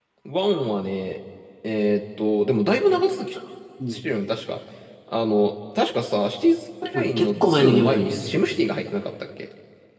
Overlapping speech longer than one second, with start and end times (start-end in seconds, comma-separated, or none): 7.0-8.3